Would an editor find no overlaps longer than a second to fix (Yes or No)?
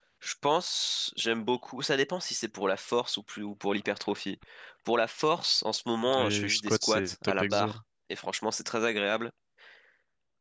No